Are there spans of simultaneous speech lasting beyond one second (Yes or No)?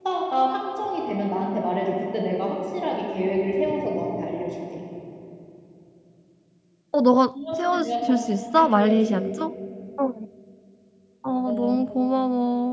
Yes